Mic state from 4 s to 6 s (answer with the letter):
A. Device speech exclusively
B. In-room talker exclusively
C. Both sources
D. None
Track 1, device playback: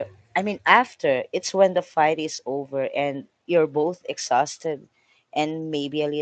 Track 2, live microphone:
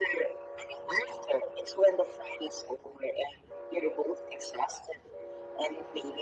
A